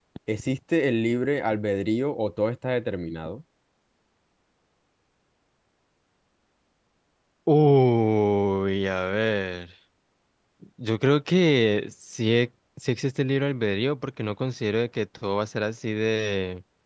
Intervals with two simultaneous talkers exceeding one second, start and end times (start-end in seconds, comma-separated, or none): none